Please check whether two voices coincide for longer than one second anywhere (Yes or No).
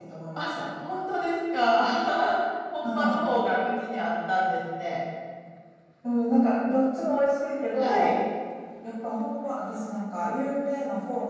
No